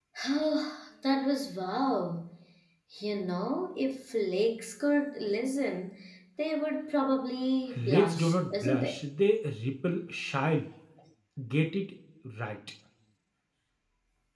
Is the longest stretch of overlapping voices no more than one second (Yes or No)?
No